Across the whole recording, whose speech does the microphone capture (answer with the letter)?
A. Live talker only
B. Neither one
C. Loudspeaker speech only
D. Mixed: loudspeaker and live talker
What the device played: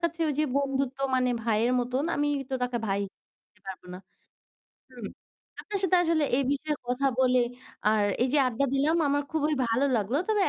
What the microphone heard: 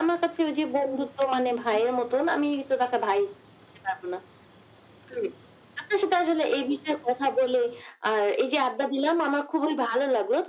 D